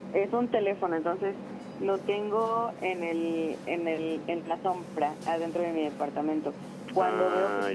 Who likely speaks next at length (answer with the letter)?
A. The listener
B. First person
B